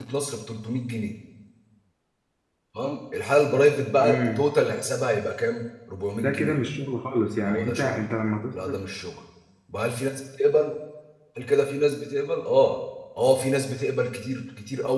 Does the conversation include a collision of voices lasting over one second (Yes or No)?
No